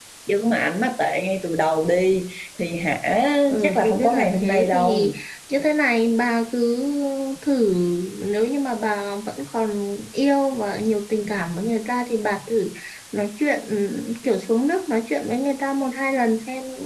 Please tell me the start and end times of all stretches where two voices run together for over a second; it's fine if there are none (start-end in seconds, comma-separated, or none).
3.6-5.1